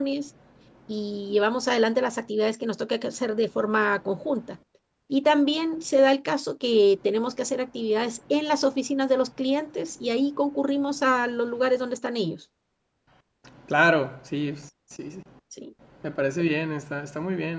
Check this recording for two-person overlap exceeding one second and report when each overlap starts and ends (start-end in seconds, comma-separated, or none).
none